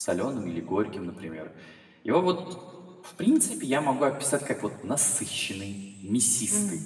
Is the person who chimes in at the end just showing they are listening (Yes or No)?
Yes